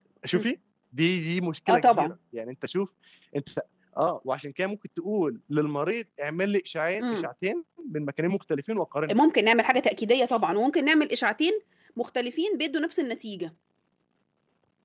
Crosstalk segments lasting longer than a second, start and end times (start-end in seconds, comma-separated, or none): none